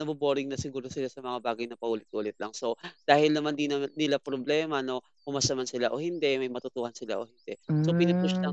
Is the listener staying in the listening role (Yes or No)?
Yes